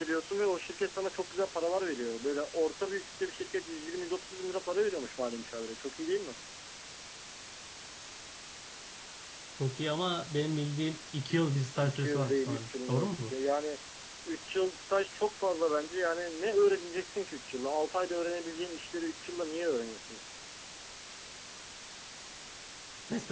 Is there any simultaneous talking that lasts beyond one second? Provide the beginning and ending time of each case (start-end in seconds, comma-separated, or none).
11.8-13.3